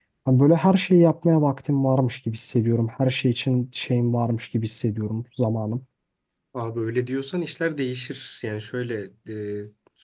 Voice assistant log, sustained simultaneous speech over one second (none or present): none